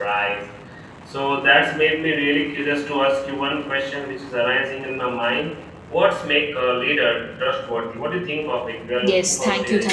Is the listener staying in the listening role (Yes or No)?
No